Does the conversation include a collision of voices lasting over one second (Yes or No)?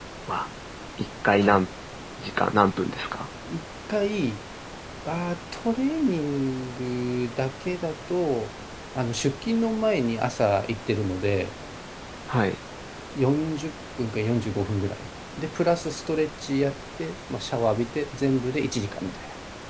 No